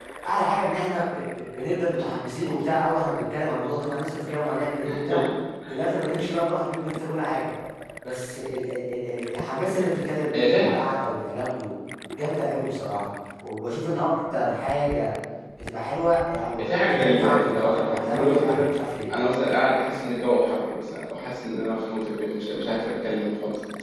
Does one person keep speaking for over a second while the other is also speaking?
Yes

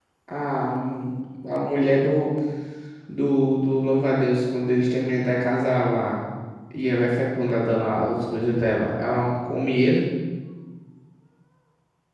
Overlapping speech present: No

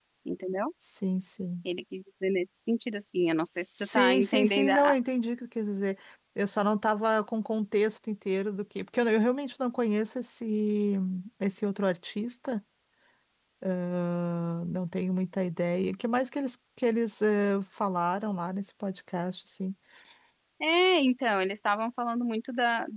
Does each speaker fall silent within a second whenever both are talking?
No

